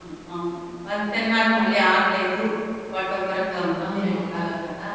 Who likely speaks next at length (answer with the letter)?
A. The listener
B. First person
A